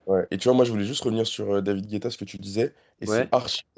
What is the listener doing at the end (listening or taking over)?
listening